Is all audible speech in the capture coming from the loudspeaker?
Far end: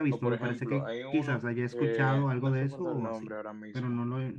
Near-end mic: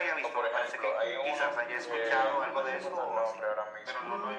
No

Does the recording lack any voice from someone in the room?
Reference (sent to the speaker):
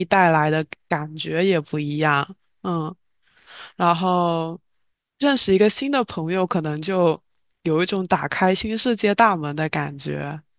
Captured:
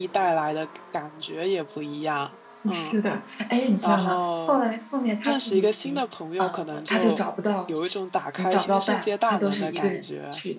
No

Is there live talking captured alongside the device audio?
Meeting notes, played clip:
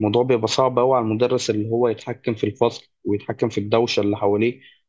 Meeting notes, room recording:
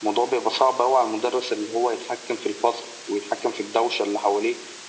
No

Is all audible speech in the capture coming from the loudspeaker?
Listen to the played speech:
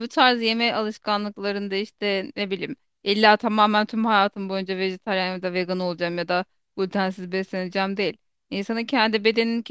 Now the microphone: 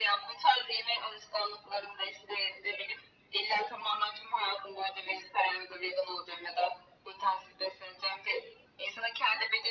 Yes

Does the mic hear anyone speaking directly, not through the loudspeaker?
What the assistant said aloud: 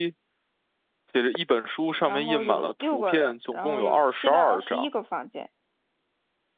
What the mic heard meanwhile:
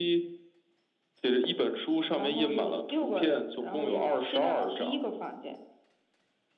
No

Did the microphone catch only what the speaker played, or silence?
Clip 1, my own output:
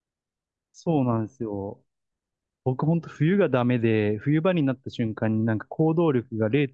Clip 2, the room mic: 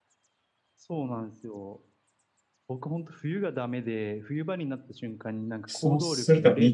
No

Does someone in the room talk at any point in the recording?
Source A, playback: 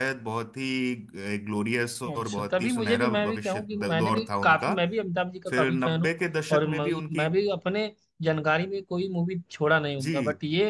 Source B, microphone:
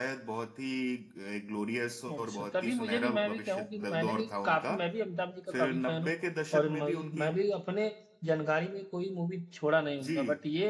No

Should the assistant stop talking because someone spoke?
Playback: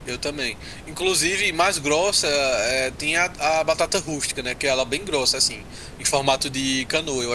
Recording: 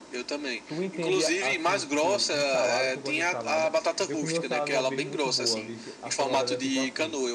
Yes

